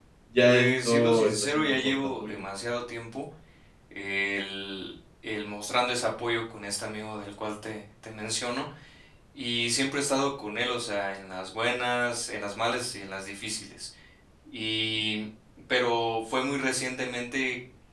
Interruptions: present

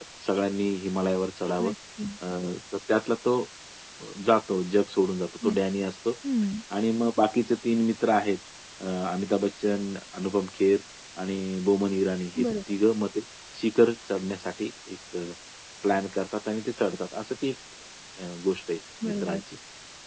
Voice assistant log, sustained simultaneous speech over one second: none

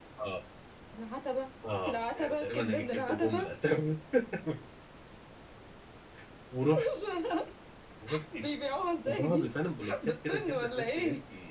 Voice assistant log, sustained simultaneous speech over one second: present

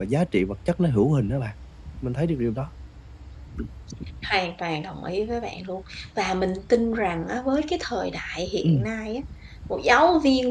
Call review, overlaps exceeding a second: none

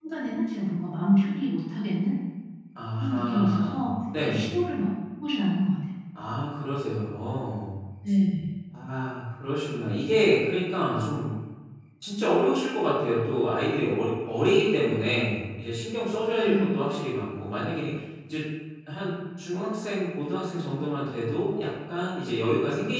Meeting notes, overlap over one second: present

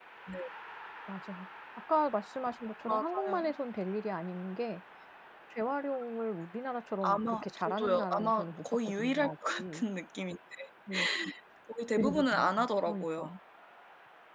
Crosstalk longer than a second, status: present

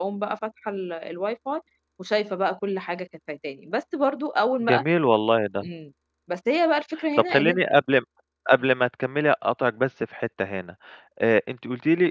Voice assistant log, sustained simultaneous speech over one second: none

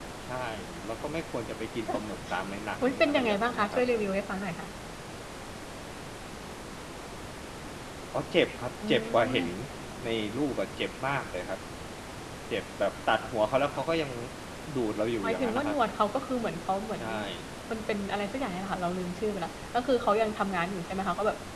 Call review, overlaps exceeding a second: present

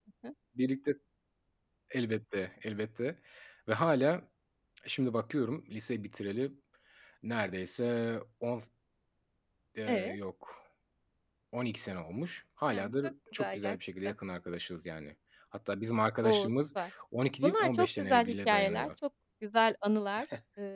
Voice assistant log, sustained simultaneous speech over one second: present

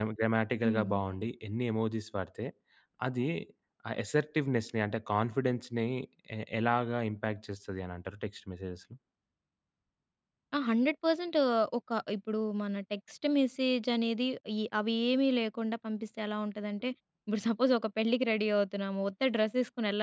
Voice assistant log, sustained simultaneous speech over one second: none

